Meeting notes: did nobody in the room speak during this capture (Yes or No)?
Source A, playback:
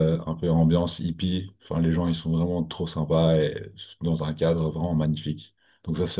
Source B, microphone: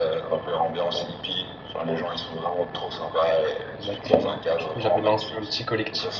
No